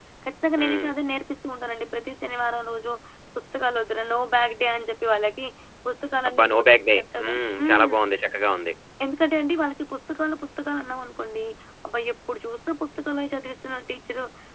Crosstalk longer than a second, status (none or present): present